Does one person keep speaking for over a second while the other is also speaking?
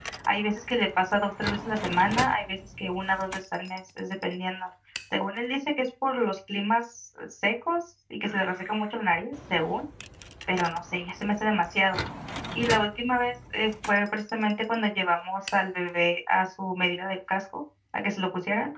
No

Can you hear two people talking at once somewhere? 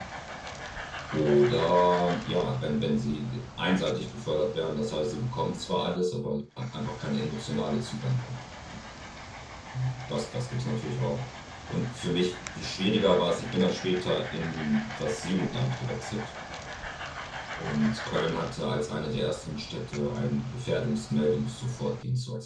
No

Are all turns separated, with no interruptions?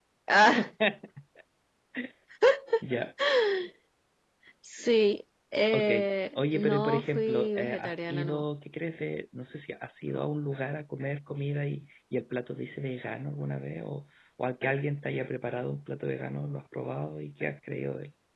No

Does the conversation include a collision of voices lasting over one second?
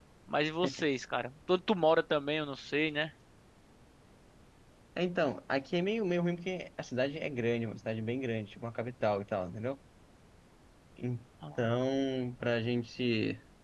No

